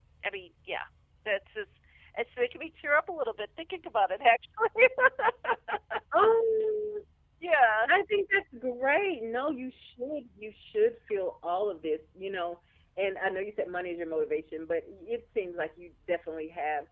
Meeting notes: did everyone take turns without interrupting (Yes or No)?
Yes